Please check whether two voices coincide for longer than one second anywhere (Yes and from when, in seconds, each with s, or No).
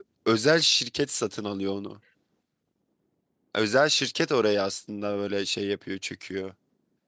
No